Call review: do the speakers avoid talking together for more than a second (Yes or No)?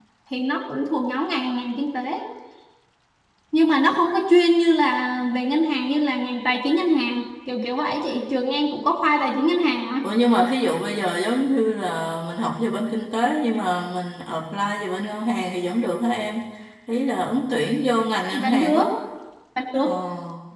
Yes